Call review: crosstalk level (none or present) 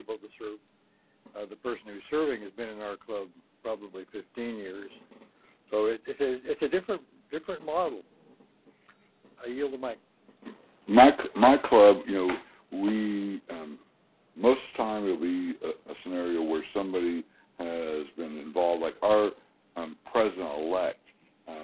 none